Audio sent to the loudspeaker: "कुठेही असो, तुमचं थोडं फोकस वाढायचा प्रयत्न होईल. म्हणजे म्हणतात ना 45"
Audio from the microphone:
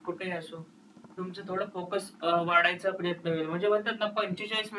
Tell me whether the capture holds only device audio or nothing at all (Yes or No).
Yes